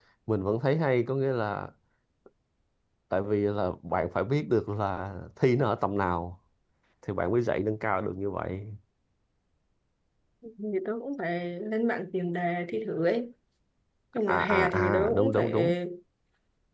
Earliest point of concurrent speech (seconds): 14.3 s

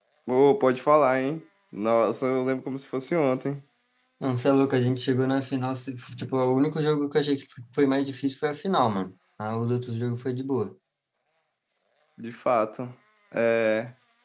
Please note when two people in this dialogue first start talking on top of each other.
none

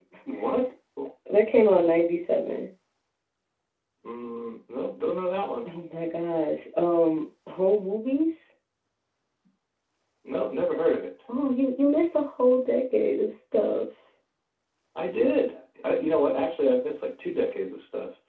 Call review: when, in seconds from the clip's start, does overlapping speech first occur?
none

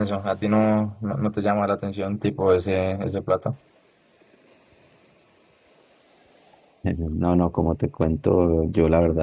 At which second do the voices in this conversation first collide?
none

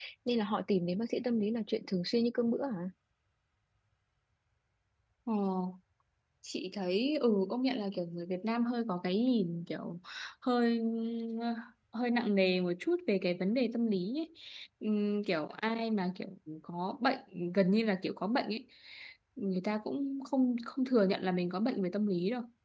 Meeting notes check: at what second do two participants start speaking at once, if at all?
none

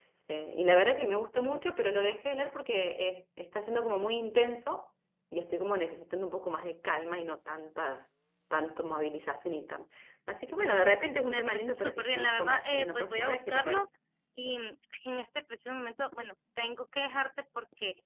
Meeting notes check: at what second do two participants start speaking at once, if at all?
11.3 s

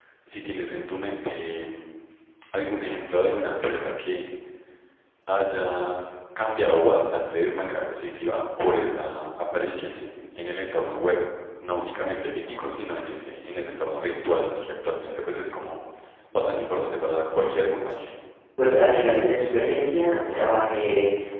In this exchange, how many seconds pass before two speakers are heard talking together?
none

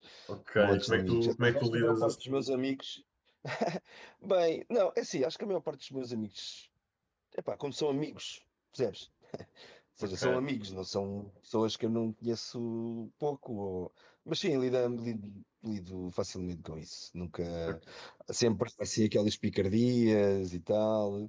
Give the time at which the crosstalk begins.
0.6 s

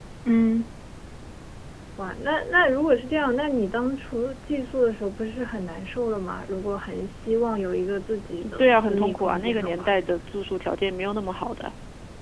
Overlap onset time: 8.4 s

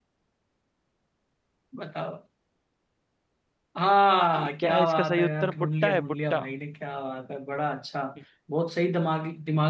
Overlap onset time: 4.4 s

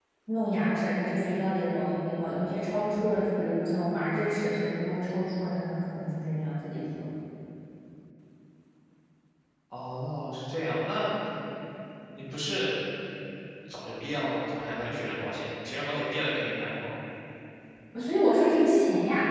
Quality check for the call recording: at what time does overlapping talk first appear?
none

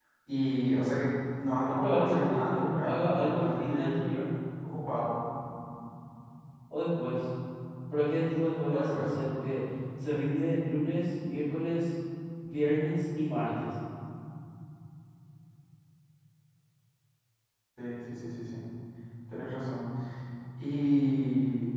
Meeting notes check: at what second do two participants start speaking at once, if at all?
1.7 s

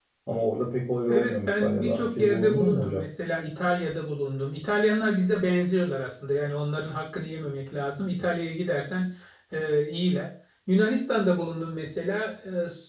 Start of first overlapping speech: 1.1 s

